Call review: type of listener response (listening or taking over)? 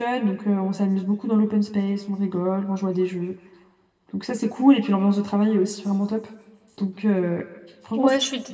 taking over